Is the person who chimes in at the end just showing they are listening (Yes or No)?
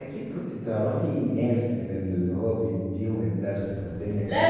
No